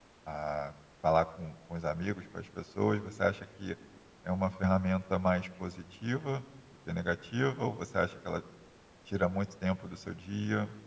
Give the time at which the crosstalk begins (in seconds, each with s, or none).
none